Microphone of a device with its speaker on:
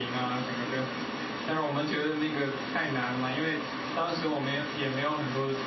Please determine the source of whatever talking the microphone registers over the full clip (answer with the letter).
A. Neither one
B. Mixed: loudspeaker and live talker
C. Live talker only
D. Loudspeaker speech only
D